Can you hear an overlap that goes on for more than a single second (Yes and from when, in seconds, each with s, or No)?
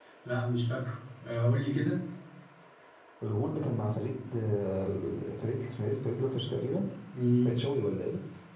No